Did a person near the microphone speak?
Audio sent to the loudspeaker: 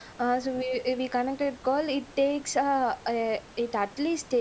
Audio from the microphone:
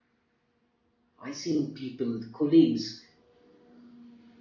Yes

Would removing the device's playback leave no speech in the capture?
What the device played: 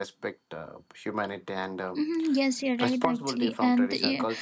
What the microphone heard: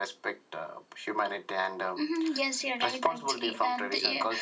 Yes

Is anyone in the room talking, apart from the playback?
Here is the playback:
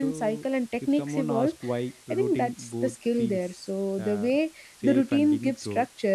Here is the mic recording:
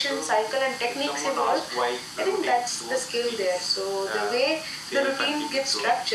No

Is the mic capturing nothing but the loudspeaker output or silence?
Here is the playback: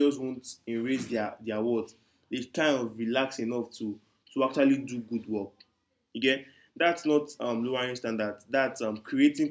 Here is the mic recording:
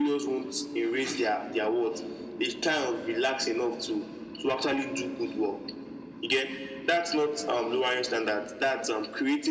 Yes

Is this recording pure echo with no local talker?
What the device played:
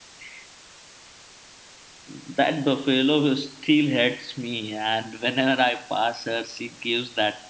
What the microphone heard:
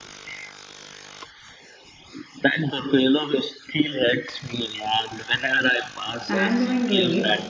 No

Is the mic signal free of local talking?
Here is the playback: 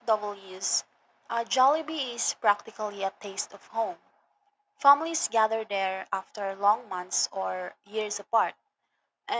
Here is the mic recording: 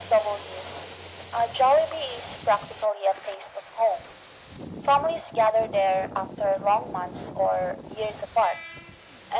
Yes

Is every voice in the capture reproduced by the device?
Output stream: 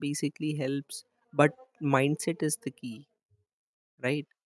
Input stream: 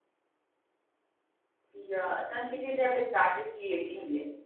No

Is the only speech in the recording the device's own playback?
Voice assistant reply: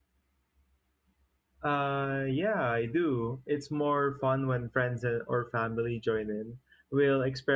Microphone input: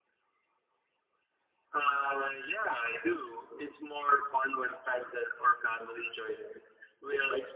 Yes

